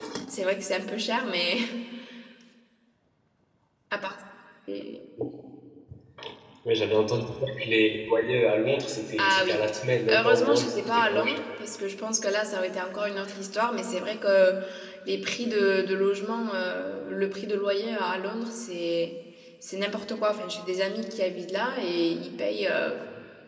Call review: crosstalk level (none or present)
present